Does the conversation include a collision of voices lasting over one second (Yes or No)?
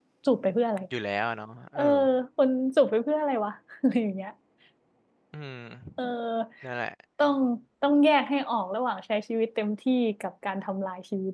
No